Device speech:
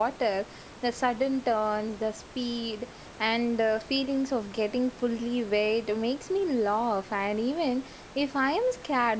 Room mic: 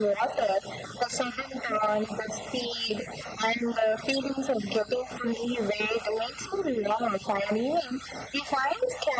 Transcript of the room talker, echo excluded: none

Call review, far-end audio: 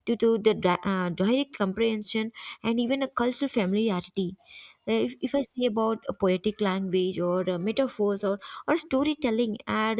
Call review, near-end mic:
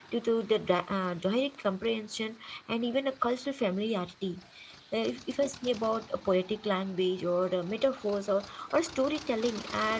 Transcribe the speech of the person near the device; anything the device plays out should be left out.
none

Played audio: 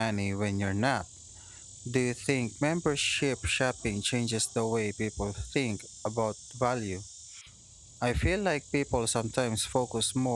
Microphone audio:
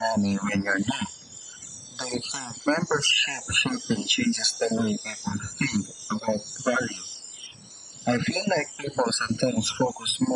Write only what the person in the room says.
none

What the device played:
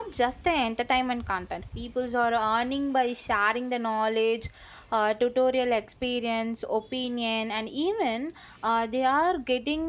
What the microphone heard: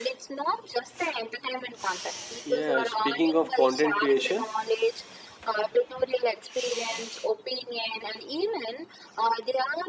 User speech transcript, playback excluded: Yeah, speaking of content creation,

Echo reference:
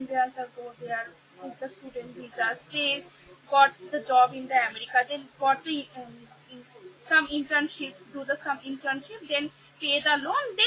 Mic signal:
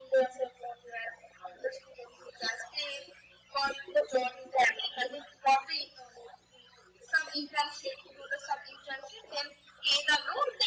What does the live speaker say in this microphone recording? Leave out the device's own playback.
none

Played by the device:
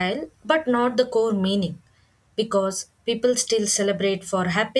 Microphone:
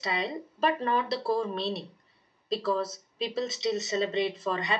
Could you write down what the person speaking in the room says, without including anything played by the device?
none

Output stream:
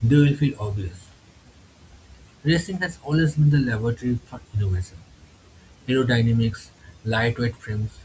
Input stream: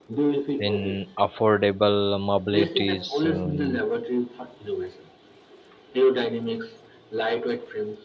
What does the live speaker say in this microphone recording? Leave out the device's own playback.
in affordable mobilities, um,

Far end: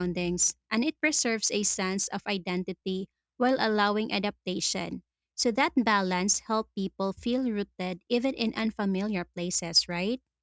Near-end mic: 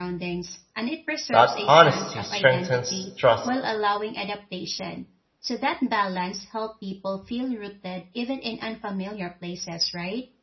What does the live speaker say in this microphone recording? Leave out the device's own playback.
That honesty strengthens trust.

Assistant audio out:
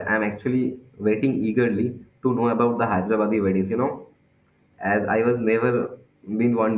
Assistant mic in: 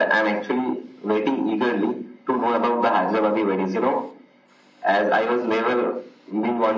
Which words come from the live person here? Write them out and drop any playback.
none

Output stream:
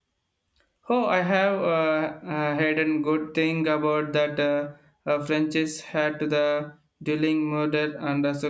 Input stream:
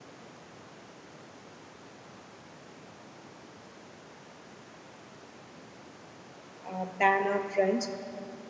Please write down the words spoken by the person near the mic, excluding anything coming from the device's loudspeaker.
uh, Tana French.

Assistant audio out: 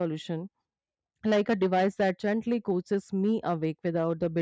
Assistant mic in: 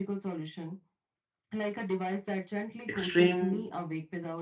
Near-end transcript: extreme

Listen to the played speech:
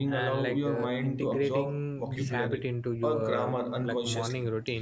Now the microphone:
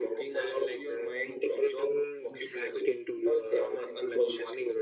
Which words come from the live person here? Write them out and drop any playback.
none

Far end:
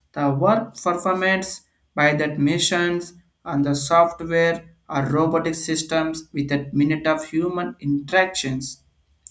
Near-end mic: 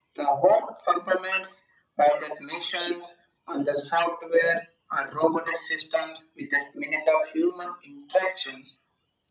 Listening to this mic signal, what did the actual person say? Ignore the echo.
none

